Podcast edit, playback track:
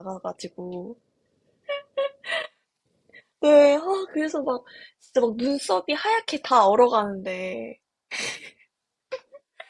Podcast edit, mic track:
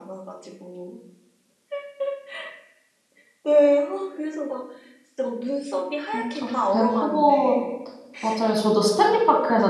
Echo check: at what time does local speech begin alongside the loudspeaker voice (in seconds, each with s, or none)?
6.1 s